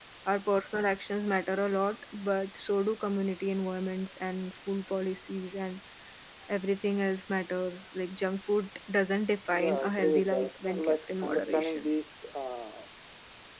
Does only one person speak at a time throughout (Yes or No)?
No